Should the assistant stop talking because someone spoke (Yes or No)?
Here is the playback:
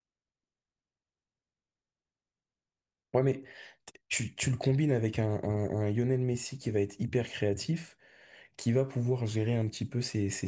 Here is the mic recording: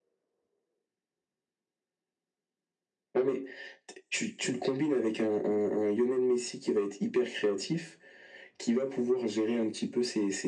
No